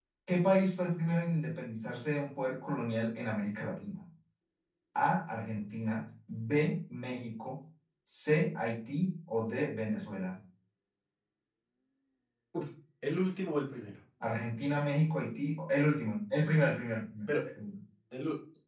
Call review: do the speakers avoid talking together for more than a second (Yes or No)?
Yes